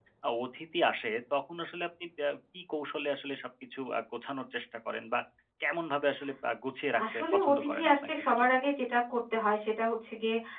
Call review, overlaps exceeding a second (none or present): present